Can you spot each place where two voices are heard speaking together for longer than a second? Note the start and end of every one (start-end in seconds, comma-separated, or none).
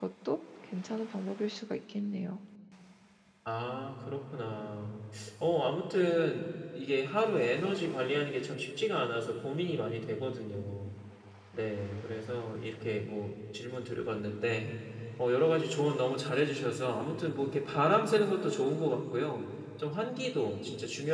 none